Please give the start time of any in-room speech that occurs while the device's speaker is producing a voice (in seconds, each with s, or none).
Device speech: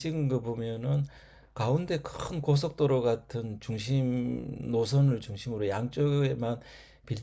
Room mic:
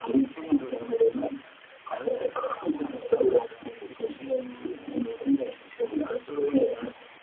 none